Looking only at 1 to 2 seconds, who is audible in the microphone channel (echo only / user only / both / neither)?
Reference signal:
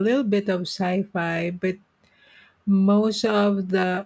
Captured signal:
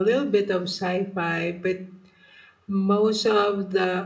echo only